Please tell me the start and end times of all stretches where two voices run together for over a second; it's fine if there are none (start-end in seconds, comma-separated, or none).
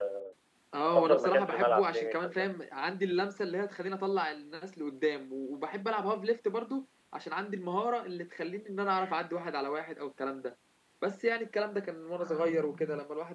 0.9-2.5